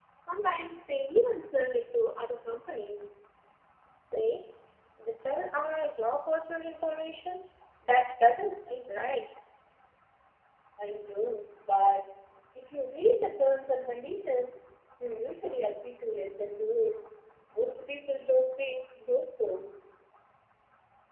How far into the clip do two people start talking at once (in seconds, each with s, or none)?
none